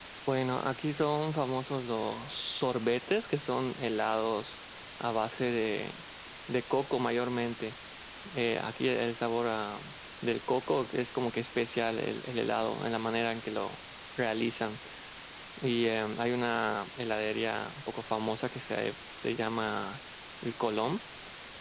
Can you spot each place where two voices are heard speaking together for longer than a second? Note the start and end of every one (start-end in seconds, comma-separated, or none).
none